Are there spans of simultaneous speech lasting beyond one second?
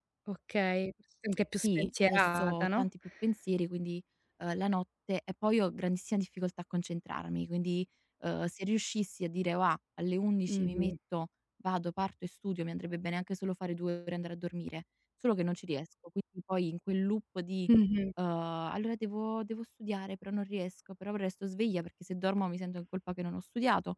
Yes, from 1.6 s

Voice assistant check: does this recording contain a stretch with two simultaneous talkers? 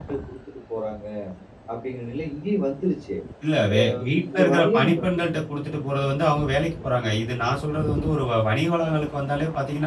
Yes, from 3.7 s

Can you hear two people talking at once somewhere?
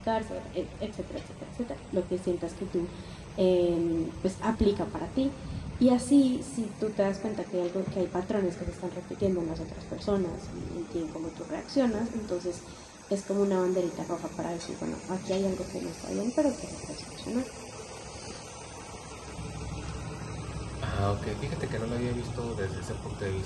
No

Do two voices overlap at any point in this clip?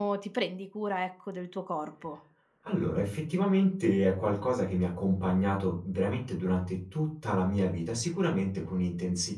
No

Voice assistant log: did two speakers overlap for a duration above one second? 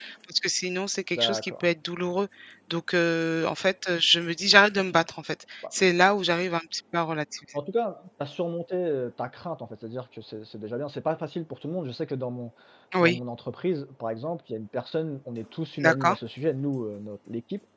No

